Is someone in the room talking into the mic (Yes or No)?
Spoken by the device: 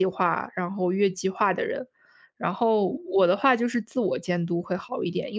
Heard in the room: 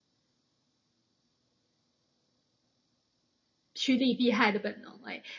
Yes